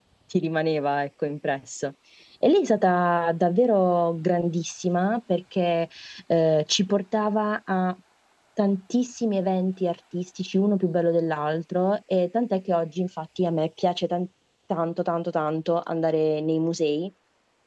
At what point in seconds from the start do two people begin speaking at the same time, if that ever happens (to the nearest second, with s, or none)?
none